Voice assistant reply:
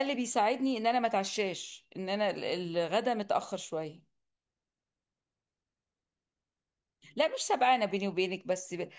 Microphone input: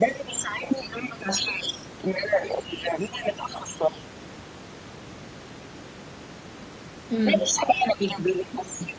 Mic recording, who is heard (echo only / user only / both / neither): both